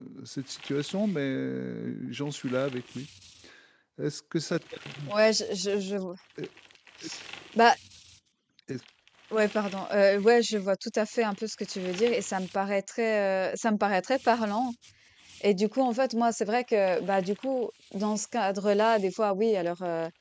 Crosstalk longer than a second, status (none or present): none